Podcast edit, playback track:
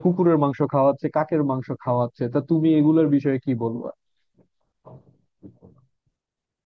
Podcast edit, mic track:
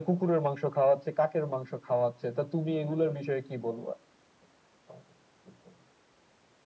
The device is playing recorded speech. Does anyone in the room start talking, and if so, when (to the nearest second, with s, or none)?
none